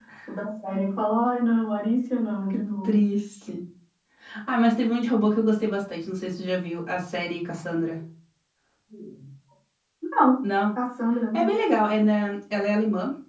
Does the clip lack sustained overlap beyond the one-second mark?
Yes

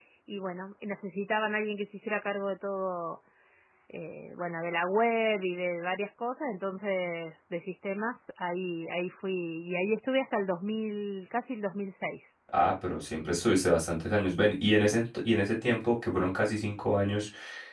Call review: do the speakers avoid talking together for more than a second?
Yes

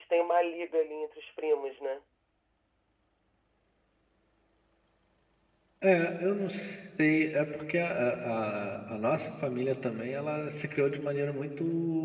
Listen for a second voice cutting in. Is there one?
No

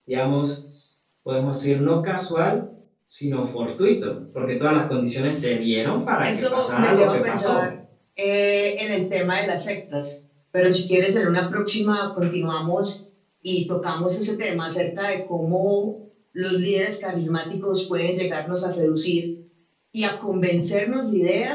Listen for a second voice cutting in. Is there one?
Yes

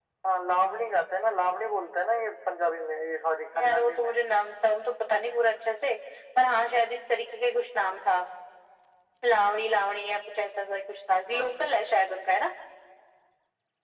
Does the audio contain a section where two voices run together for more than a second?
No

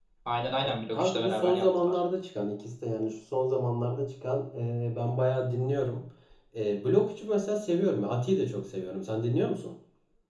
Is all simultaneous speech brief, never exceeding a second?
No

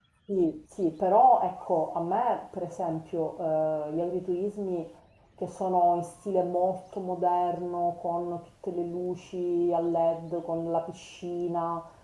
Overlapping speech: No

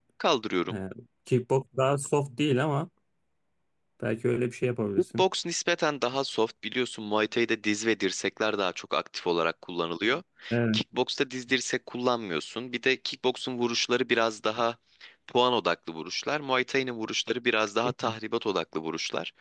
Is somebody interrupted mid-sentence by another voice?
No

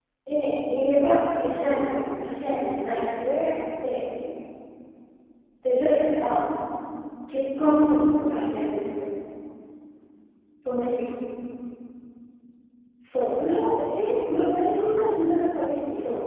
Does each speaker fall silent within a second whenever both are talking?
Yes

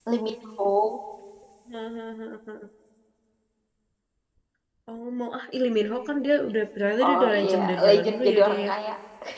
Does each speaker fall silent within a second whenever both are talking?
No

